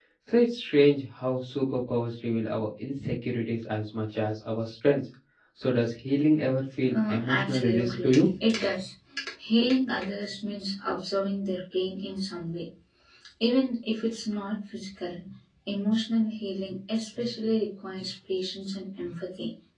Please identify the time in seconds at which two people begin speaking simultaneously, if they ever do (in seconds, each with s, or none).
6.9 s